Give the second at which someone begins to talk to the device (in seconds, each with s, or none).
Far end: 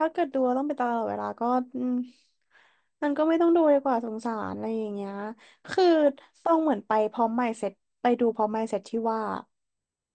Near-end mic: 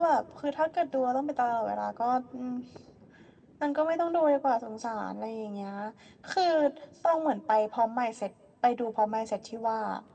none